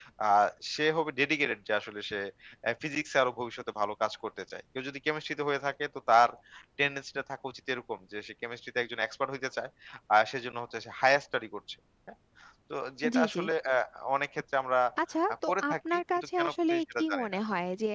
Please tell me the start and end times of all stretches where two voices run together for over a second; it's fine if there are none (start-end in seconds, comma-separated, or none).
15.5-17.3